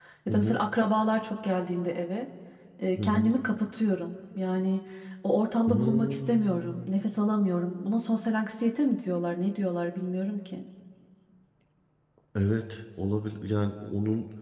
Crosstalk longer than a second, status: present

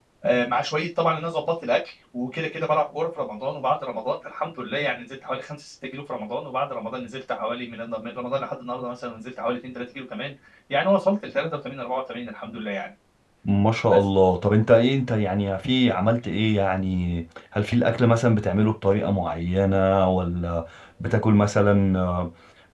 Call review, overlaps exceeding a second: none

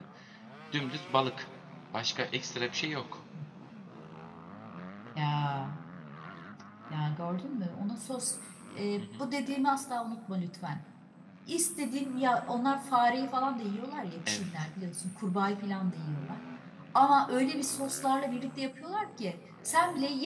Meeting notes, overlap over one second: none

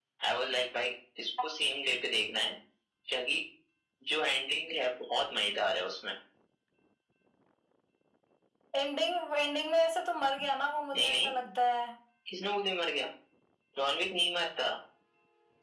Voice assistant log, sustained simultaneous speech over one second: none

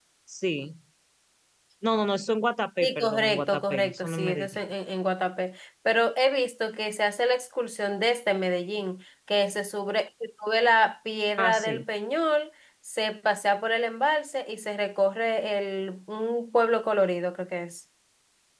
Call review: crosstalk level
present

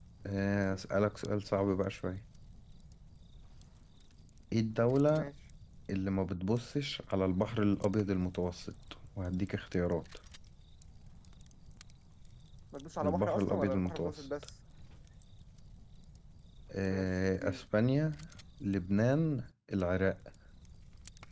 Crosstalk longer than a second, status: present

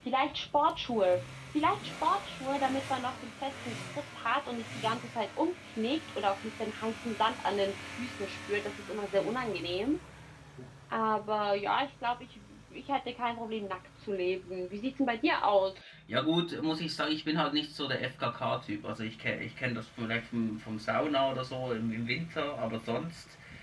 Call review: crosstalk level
none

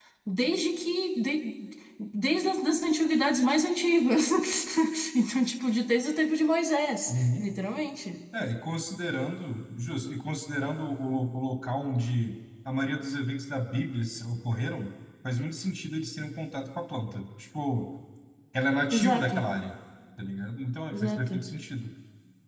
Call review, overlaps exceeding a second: none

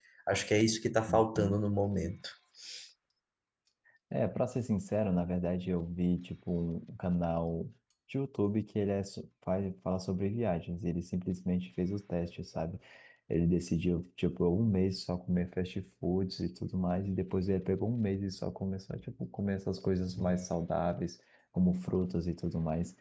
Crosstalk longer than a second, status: none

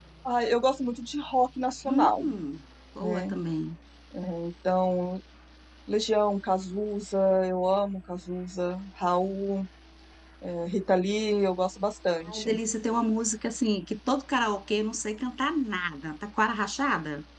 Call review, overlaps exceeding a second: none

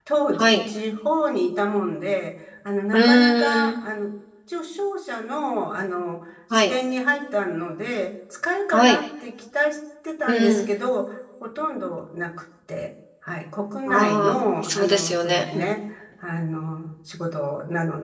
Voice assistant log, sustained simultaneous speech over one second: present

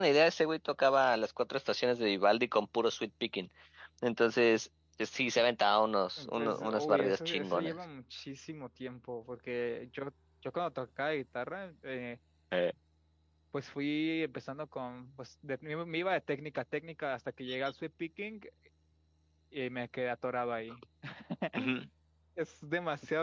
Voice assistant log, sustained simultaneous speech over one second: present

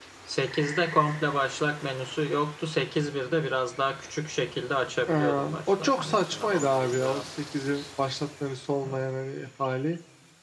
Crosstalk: present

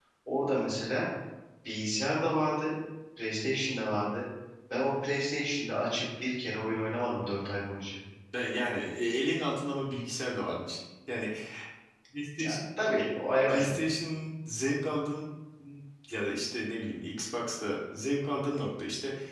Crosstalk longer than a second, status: none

